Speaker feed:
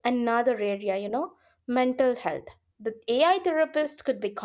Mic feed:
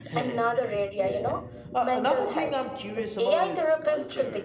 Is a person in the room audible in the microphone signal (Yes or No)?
Yes